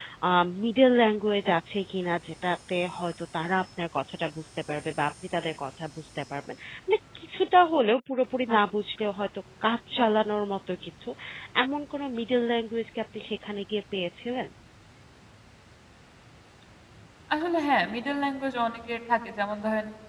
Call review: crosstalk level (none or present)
none